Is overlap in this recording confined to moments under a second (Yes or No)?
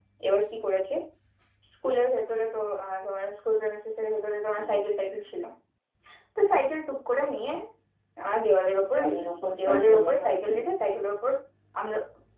No